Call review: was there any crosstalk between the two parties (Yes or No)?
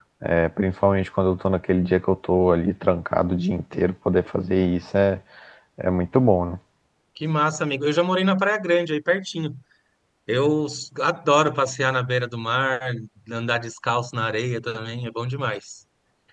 No